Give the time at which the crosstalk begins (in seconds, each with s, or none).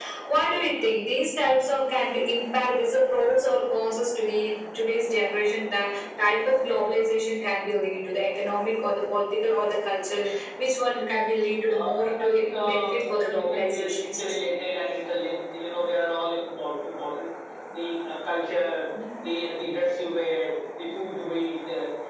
11.7 s